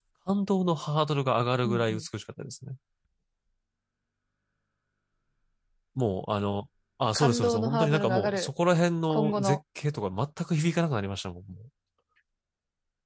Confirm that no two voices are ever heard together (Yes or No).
No